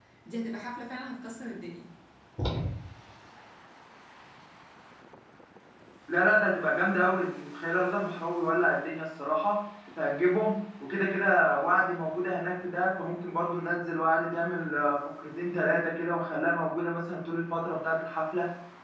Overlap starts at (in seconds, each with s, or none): none